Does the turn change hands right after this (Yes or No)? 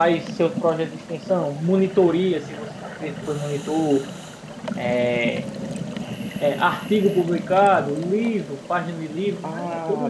Yes